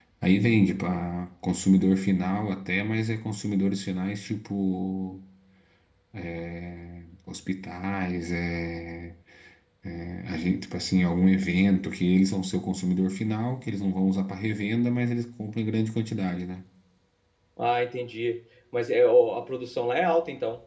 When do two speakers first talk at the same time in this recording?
none

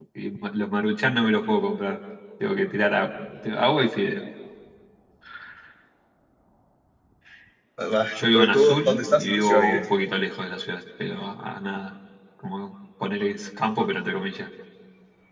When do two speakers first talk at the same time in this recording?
8.2 s

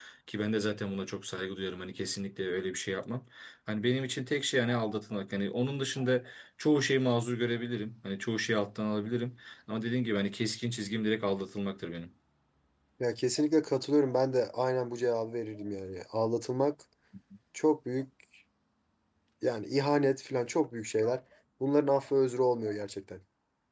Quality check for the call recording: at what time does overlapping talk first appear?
none

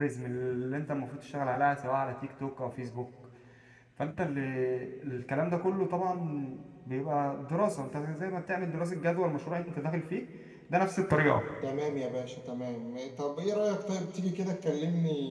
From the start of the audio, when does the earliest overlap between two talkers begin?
none

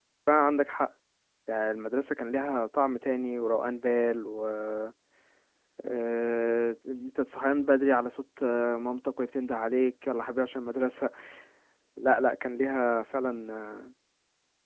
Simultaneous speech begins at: none

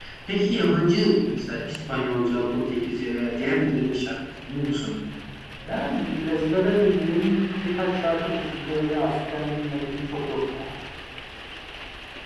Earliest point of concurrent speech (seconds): none

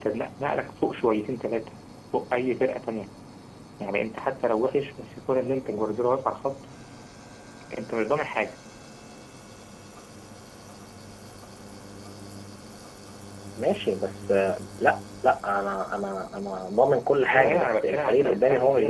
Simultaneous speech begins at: 17.3 s

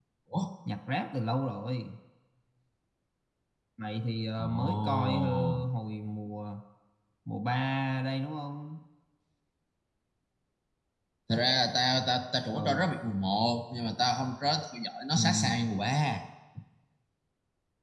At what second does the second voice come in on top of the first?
4.4 s

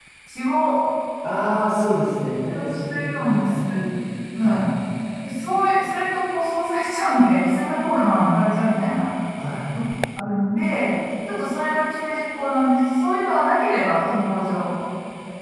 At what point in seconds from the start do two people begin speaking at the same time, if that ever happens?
2.6 s

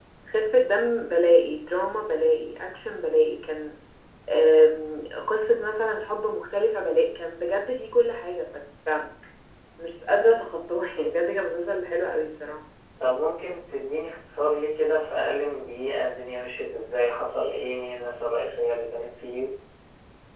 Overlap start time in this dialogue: none

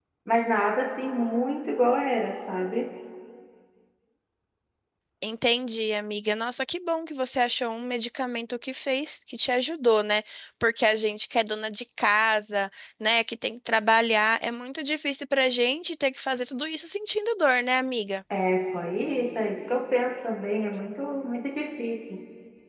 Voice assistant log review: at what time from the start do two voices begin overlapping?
none

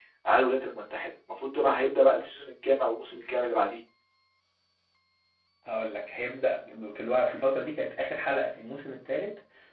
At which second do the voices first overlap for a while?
none

